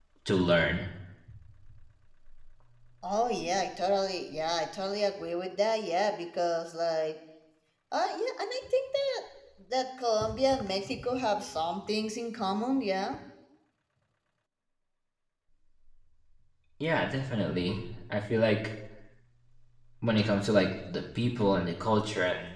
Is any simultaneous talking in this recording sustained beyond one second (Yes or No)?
No